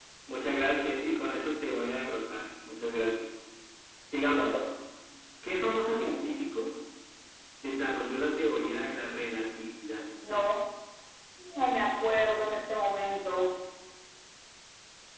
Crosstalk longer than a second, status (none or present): none